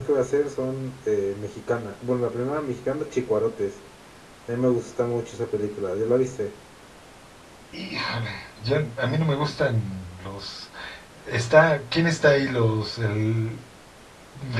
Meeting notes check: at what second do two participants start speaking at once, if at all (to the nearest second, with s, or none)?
none